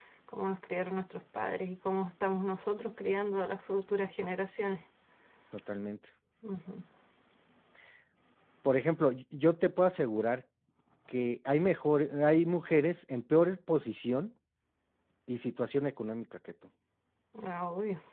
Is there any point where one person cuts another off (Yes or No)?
No